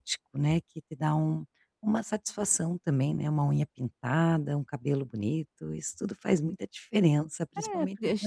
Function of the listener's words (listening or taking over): taking over